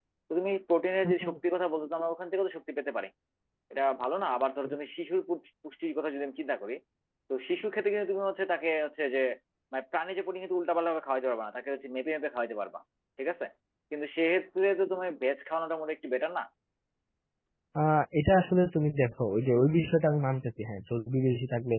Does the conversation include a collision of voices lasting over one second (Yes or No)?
No